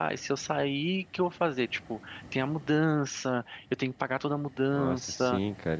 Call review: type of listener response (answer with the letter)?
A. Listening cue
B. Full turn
B